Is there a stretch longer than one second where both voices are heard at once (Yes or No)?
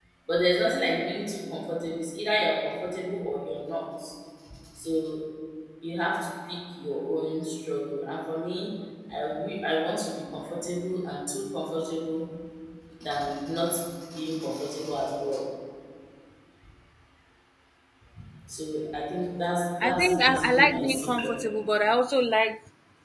Yes